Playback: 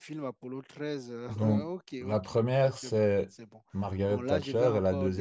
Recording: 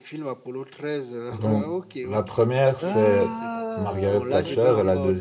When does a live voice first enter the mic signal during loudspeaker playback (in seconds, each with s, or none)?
2.8 s